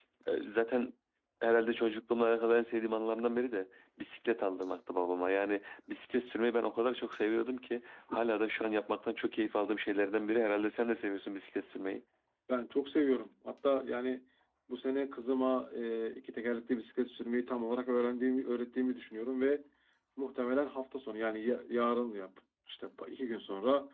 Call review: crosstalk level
none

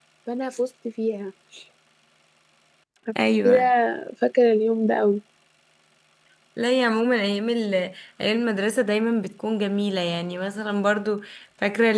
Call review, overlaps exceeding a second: none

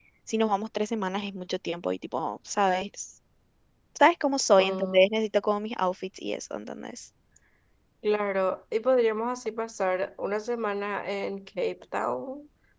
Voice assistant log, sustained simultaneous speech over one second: none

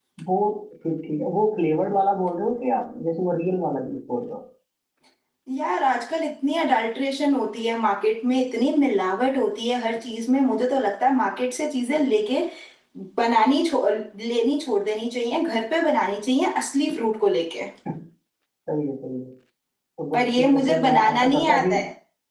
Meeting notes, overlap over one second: present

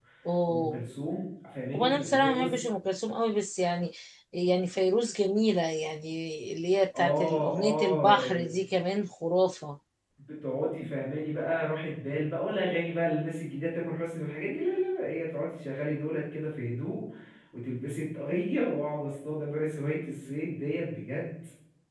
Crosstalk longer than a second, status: present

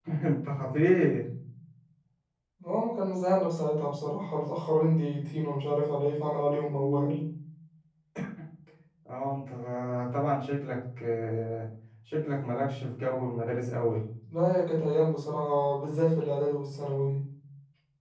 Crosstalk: none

